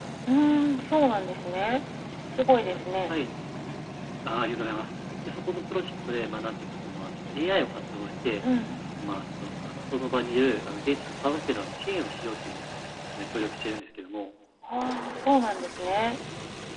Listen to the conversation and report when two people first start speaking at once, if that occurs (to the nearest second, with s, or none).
none